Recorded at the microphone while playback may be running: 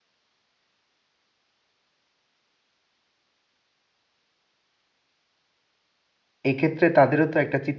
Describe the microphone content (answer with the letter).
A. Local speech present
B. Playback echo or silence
A